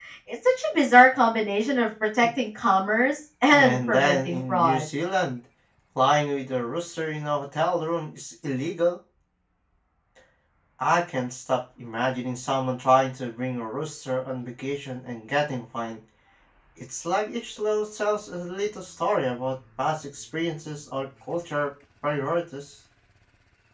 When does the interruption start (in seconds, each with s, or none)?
3.5 s